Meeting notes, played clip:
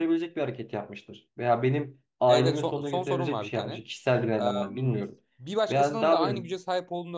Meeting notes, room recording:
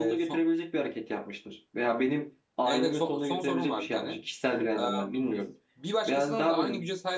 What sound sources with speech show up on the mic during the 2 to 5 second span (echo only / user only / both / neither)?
echo only